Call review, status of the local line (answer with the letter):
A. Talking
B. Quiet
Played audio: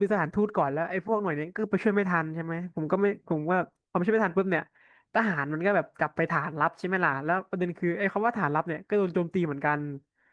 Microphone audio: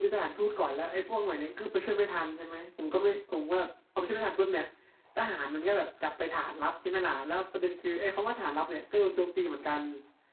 B